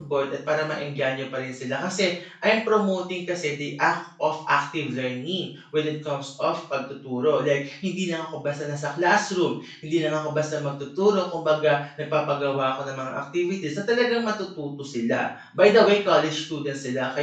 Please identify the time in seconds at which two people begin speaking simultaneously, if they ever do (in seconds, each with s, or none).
none